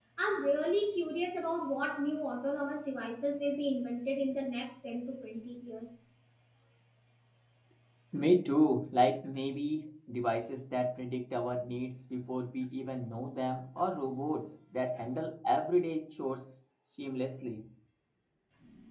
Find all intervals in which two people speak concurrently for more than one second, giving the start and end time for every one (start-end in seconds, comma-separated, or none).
none